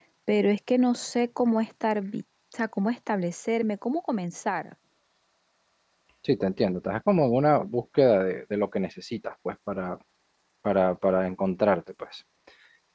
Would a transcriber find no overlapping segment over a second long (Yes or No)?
Yes